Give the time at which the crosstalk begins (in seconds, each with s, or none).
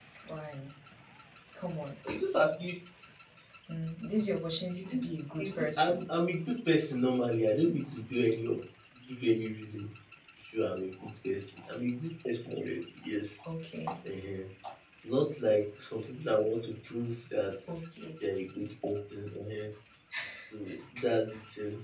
4.8 s